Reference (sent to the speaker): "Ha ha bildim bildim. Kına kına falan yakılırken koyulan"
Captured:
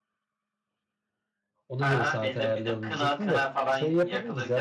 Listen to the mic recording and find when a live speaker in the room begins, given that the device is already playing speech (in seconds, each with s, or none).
1.7 s